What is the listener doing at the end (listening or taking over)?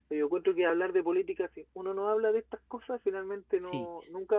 listening